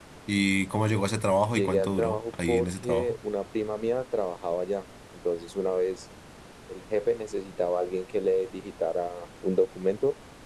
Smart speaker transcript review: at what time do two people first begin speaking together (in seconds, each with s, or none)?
1.5 s